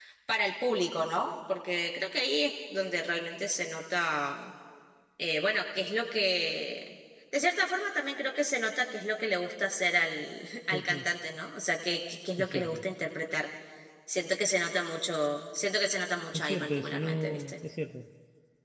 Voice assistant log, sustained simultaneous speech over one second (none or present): present